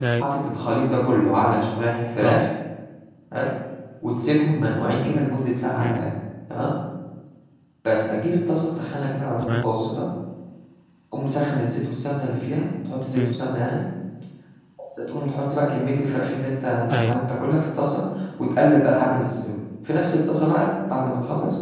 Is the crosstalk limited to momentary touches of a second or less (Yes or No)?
Yes